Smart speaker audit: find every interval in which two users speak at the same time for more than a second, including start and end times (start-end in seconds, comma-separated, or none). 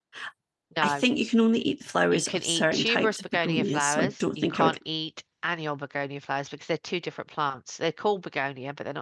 2.1-4.8